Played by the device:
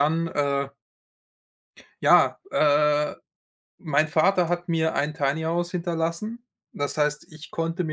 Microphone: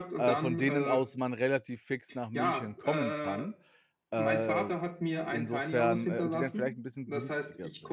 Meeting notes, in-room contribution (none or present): present